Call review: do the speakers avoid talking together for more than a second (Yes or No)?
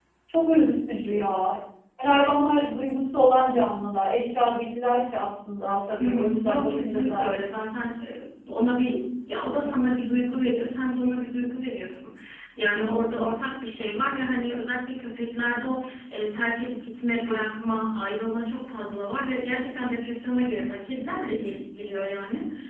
No